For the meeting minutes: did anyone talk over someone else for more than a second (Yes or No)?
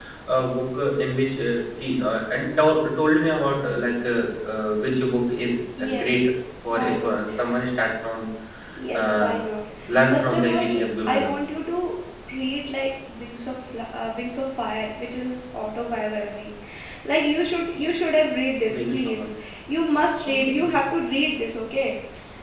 Yes